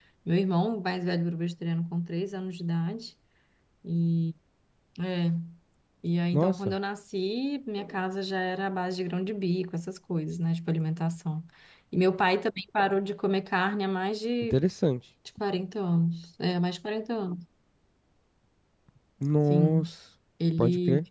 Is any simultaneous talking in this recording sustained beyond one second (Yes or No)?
No